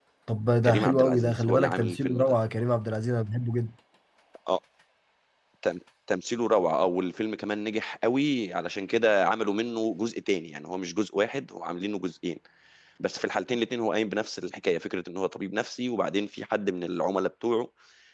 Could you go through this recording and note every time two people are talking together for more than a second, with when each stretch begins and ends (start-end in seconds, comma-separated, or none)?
0.6-2.3